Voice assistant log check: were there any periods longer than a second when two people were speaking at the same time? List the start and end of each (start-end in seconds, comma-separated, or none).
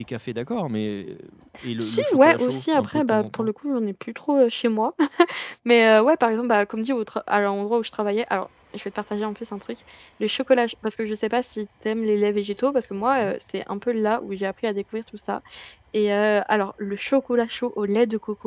1.8-3.5